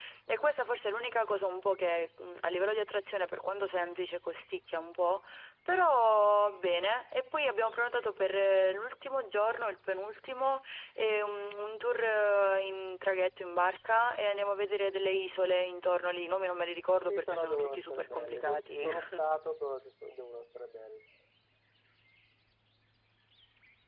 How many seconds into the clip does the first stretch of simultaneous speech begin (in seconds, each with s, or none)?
17.1 s